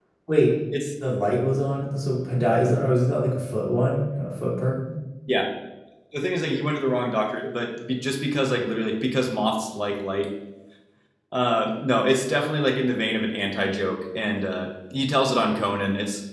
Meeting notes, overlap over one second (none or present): none